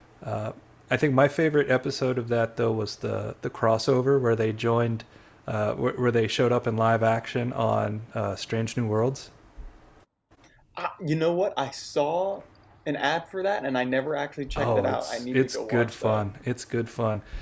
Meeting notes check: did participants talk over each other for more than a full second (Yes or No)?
Yes